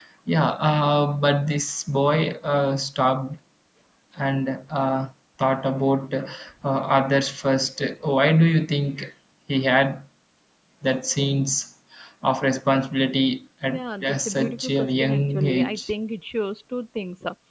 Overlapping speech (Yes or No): Yes